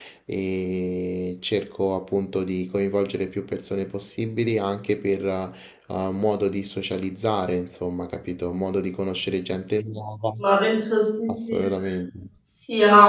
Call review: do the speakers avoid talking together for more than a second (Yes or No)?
Yes